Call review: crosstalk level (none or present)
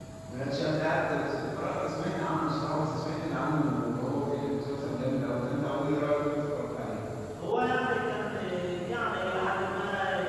none